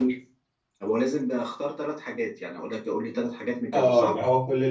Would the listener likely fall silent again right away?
No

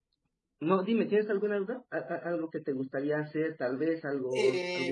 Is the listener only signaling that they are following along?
No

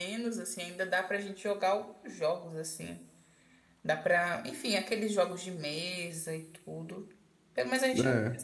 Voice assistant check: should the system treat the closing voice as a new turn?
No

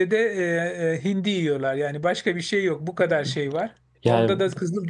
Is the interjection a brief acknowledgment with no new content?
Yes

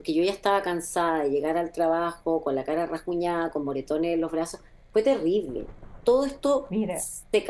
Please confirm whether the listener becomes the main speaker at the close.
No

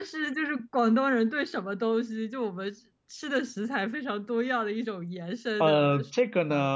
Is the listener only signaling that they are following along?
No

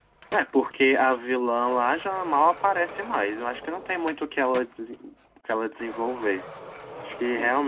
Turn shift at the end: Yes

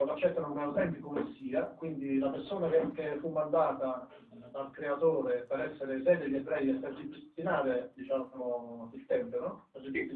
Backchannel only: Yes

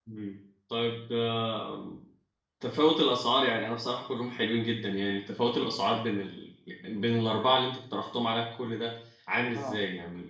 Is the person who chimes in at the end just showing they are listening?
No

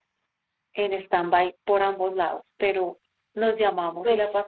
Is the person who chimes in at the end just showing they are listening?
Yes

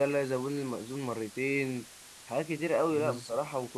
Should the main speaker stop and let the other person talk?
No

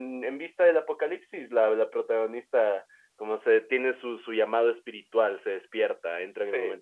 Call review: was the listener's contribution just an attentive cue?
Yes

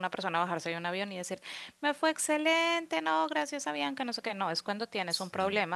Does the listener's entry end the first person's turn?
No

